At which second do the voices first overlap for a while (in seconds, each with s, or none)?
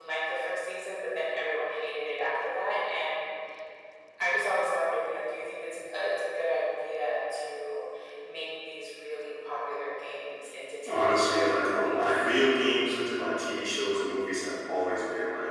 10.9 s